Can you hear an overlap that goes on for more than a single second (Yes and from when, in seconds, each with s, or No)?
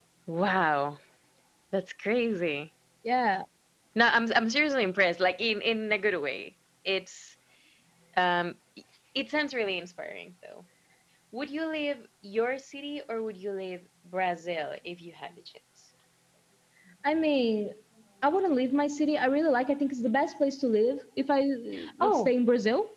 No